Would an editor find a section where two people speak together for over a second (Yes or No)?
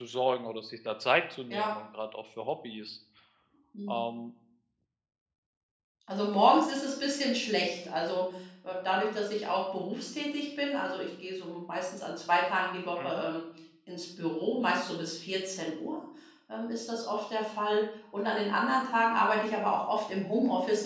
No